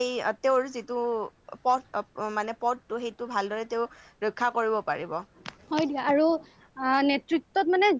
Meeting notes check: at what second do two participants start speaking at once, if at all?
none

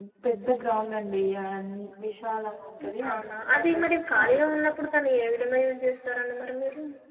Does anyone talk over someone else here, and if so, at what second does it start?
3.1 s

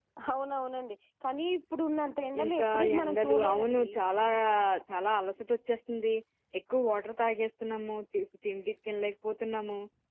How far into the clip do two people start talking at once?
2.3 s

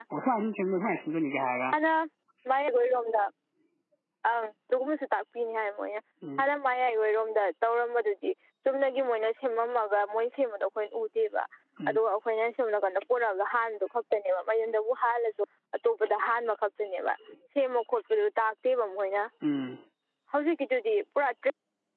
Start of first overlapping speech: none

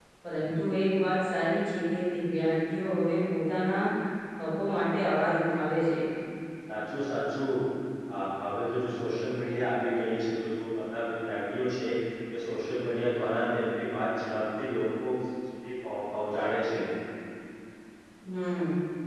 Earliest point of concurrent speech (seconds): none

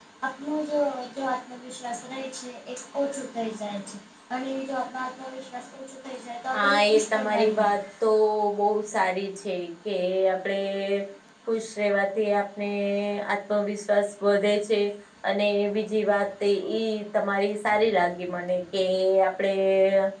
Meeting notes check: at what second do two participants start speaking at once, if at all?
6.5 s

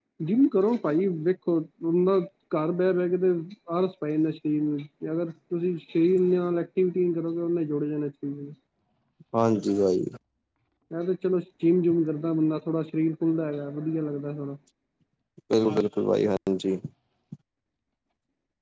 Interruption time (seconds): none

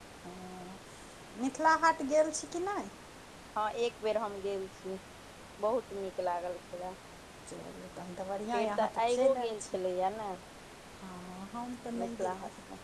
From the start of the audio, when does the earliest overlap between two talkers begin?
8.5 s

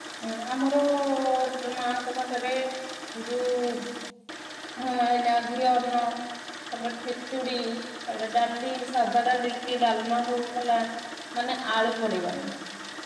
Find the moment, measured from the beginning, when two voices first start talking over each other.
none

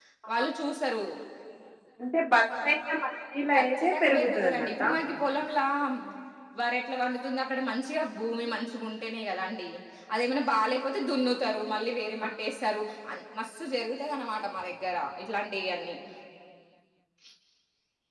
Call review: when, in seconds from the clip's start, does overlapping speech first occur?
3.5 s

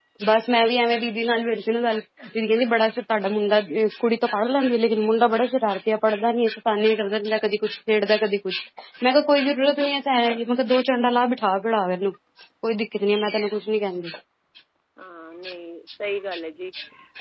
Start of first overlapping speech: none

